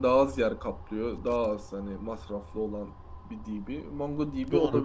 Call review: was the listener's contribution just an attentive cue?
No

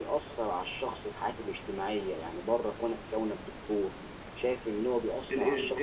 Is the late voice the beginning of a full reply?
Yes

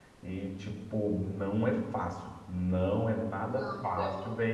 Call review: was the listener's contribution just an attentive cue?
Yes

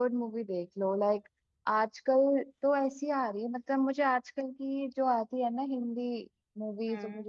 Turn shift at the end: No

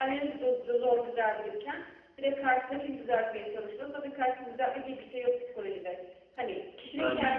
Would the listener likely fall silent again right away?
Yes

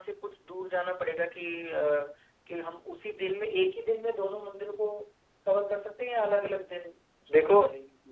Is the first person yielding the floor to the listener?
Yes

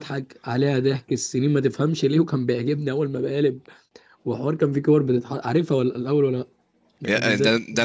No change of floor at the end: No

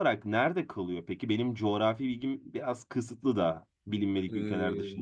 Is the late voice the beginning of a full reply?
Yes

